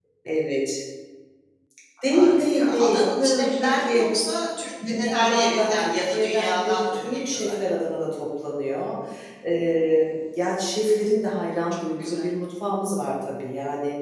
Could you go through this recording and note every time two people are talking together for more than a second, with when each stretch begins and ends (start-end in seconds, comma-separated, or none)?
2.1-4.0, 4.9-7.6